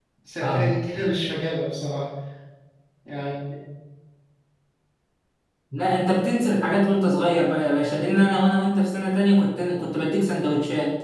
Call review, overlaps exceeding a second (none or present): none